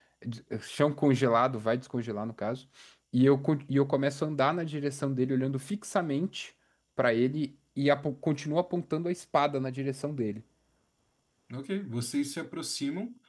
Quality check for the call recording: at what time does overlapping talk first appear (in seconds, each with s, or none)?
none